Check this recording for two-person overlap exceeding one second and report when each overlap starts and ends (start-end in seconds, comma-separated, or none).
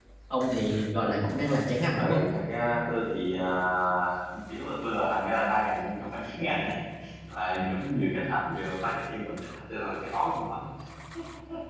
none